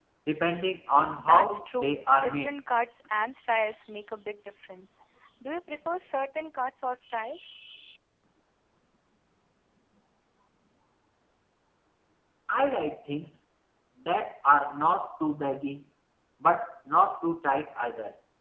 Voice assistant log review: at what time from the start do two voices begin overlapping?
1.2 s

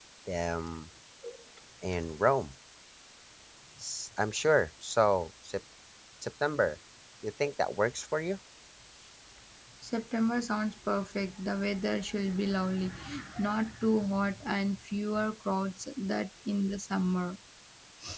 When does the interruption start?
none

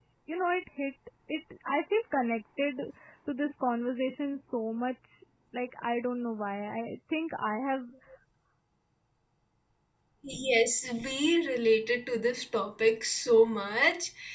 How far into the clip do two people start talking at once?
none

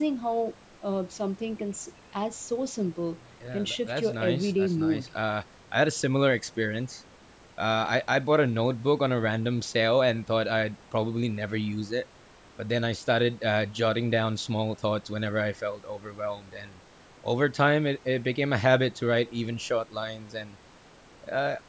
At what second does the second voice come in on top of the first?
3.4 s

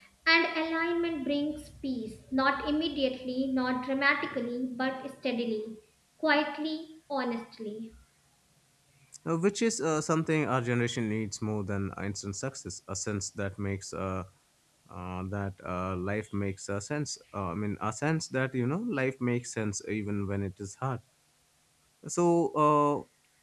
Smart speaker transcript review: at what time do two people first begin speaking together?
none

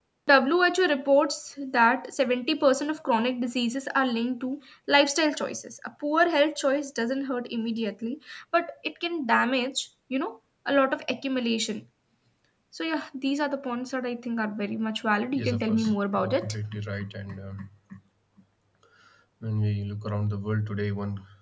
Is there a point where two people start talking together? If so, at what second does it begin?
15.3 s

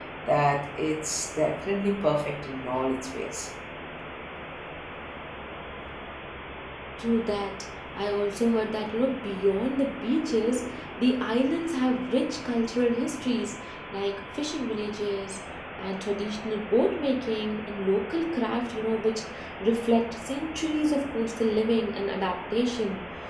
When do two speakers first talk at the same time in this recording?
none

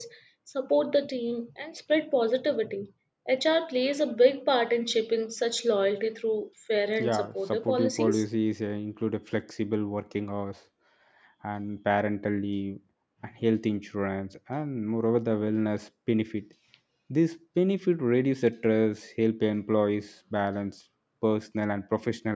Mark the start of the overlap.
7.0 s

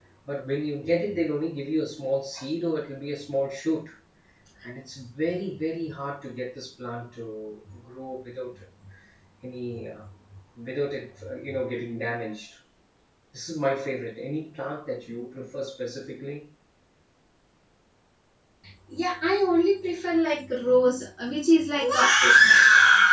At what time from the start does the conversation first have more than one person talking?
none

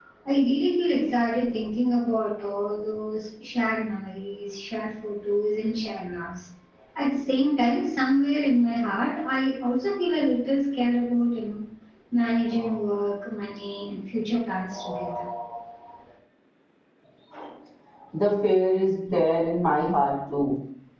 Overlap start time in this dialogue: none

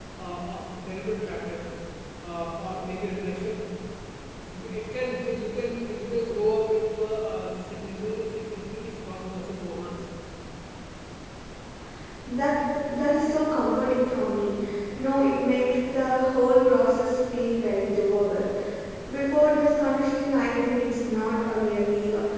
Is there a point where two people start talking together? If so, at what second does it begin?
none

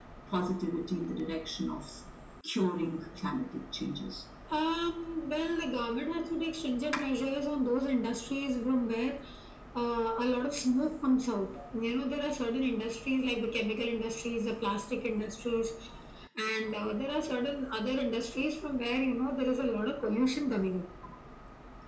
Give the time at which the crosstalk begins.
none

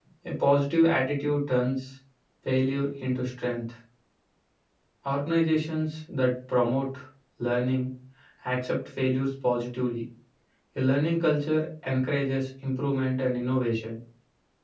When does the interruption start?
none

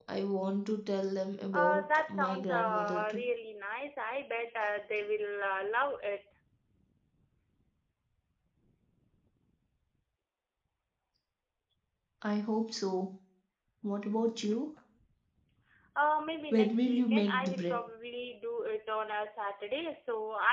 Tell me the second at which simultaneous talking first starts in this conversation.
1.5 s

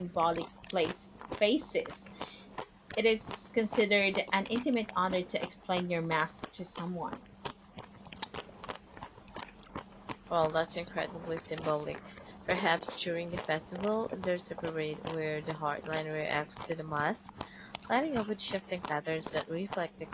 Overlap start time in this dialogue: none

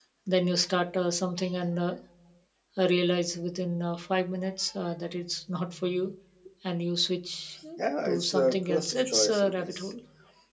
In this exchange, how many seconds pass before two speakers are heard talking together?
8.0 s

